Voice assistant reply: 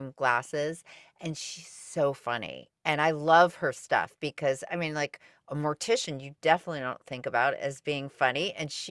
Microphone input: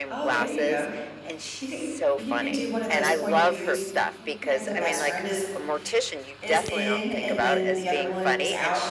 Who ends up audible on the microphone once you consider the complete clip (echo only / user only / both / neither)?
both